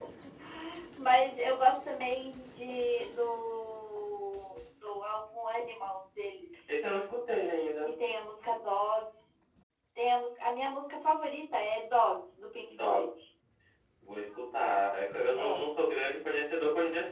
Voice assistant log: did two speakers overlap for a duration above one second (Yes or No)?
No